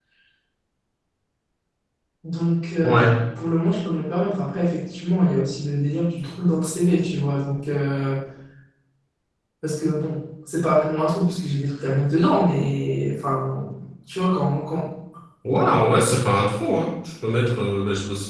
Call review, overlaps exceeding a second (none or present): none